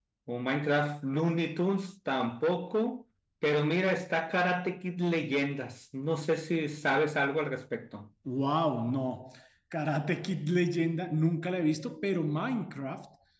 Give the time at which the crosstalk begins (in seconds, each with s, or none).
none